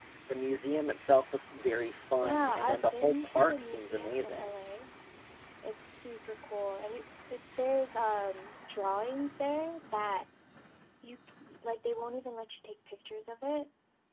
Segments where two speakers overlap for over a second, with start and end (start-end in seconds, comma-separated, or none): 2.2-4.6